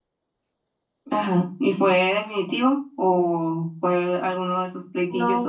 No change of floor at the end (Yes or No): No